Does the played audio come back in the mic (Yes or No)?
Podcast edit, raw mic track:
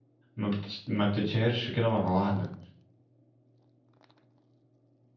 No